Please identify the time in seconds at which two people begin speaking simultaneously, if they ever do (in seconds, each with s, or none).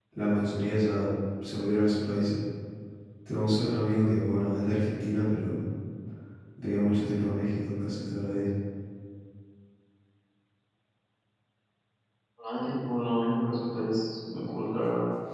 none